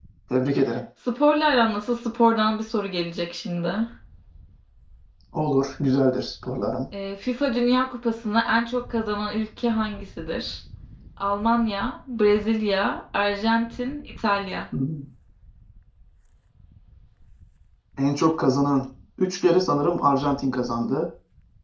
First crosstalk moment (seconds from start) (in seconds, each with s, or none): none